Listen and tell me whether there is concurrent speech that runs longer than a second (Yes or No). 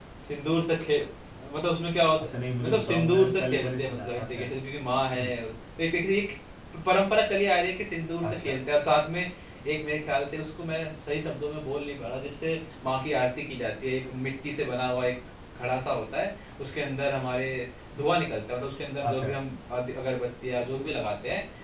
Yes